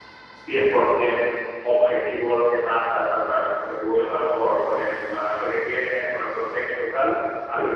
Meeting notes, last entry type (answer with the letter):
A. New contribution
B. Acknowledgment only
B